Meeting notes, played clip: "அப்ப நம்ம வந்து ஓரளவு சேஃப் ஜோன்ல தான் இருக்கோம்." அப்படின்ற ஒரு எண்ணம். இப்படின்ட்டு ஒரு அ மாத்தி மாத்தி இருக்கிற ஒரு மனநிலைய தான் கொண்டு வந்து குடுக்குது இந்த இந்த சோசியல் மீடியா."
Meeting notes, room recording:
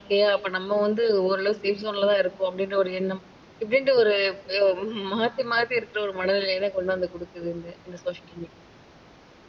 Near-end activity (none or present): none